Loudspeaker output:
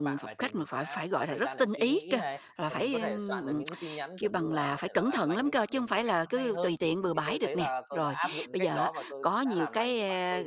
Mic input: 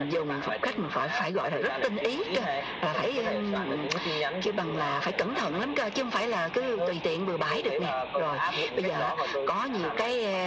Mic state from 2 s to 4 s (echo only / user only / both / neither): echo only